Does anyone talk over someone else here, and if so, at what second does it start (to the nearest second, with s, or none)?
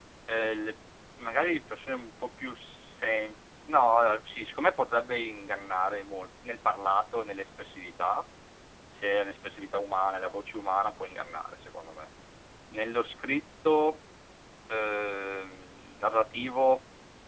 none